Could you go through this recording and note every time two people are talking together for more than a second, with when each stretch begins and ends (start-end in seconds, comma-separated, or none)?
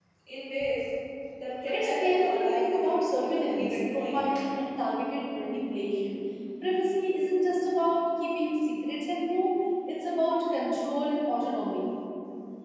1.7-4.2